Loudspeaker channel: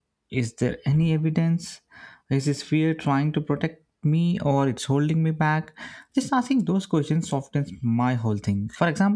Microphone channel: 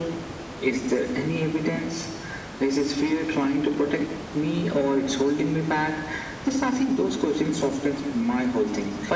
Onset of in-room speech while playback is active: none

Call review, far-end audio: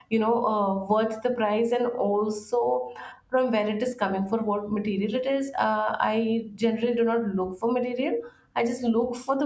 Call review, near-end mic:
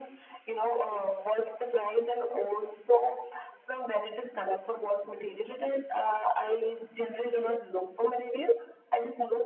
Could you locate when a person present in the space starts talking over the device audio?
none

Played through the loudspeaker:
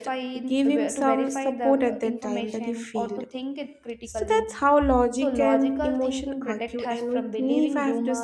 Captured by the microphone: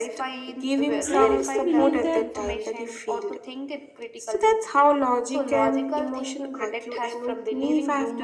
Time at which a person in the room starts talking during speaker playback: 1.0 s

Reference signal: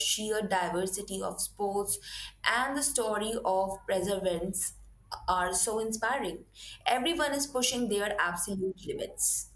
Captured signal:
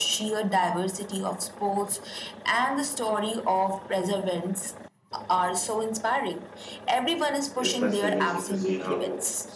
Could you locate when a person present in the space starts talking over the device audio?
7.5 s

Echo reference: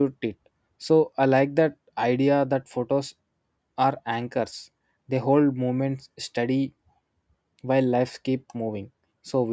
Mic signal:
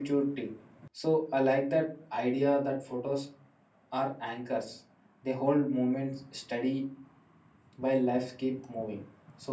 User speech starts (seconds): none

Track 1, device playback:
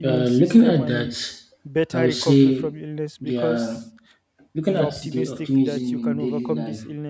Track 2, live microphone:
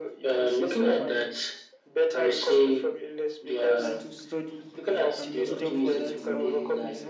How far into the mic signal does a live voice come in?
3.6 s

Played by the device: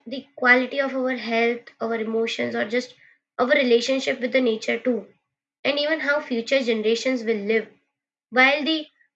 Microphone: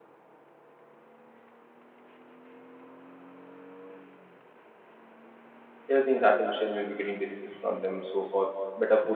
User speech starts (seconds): 5.9 s

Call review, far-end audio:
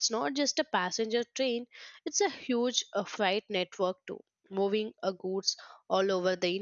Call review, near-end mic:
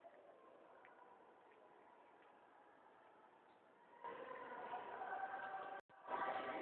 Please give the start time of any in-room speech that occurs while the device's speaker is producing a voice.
none

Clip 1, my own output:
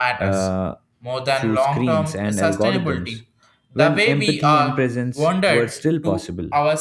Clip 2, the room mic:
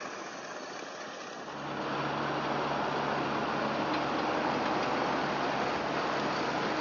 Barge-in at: none

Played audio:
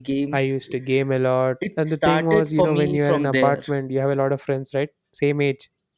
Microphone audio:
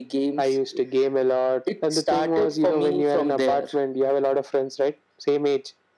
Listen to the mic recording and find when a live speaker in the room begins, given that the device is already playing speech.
none

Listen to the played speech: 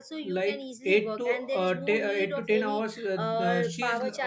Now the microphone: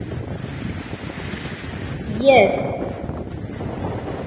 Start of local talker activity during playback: 2.0 s

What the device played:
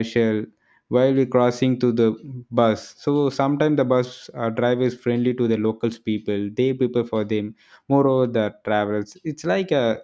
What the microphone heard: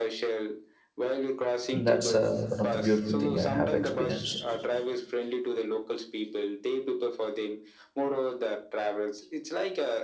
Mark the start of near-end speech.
1.7 s

